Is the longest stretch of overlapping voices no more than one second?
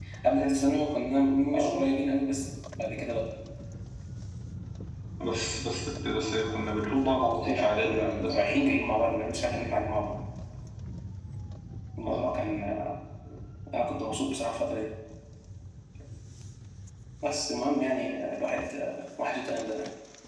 No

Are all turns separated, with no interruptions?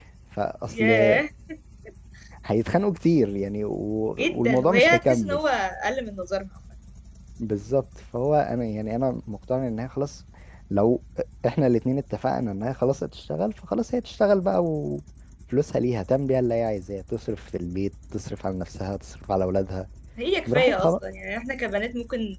No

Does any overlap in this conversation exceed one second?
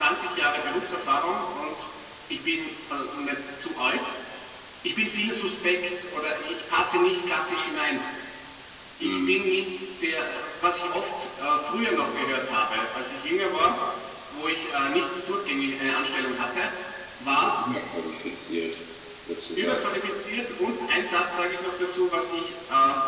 No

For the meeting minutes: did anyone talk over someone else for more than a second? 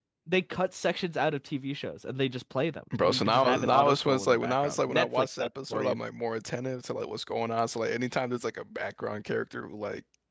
Yes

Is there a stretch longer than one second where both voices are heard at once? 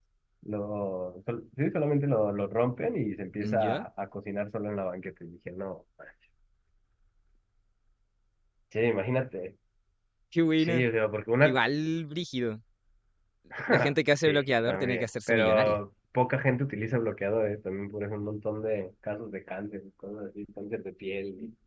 Yes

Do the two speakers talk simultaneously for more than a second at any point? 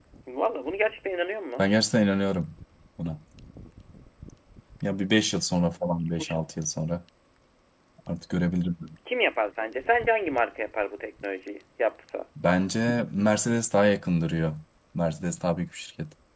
No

